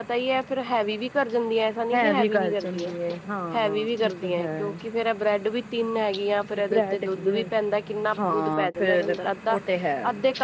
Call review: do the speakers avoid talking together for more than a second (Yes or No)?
No